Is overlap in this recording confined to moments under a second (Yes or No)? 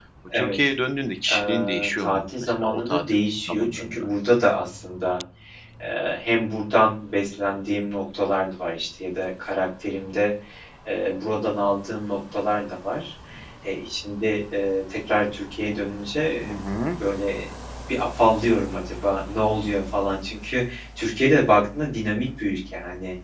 No